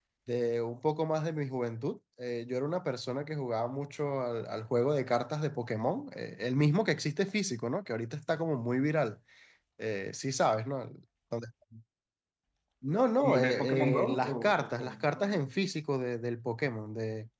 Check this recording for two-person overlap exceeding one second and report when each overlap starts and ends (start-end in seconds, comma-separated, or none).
13.2-15.0